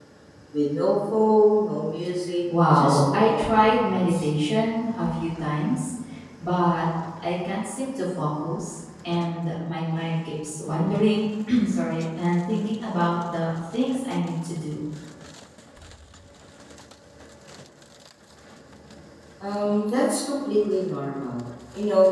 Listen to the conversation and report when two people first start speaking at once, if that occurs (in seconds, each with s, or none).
2.5 s